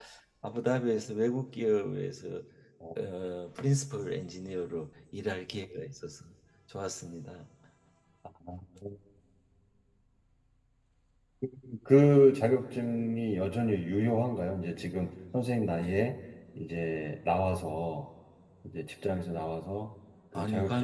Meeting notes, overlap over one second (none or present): none